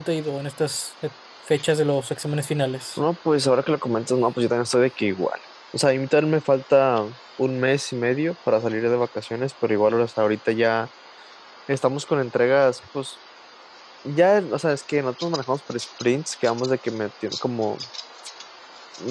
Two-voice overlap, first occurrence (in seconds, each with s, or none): none